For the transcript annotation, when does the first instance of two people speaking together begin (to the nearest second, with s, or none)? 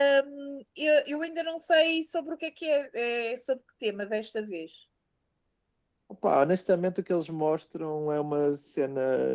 none